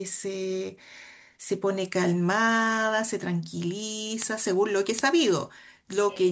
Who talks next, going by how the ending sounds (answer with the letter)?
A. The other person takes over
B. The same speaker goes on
A